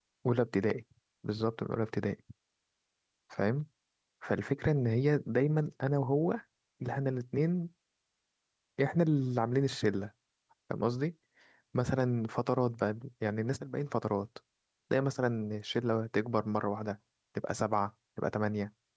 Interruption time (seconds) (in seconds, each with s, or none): none